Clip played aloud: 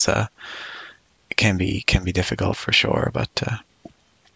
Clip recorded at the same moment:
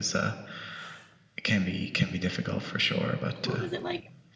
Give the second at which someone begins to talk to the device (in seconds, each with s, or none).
3.4 s